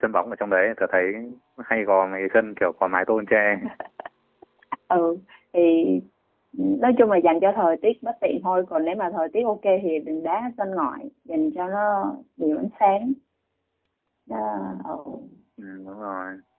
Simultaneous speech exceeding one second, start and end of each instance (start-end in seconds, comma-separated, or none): none